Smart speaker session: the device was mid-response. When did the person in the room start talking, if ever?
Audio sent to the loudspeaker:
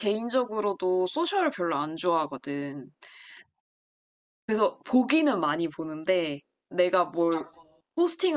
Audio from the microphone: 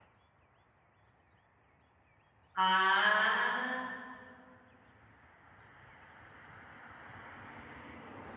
2.5 s

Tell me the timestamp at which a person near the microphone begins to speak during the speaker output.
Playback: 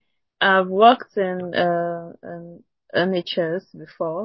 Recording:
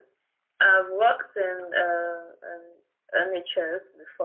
none

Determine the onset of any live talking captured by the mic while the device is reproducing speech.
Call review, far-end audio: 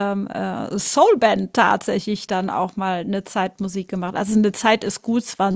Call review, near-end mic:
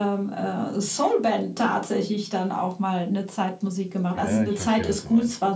4.1 s

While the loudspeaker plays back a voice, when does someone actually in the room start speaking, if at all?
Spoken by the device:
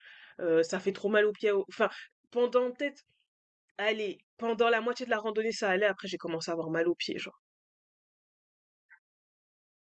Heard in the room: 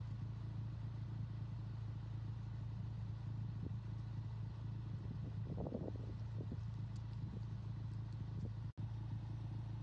none

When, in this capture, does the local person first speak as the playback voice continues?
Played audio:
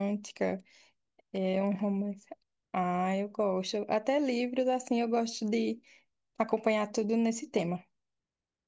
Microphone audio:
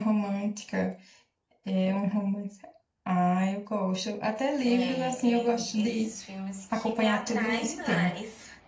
4.7 s

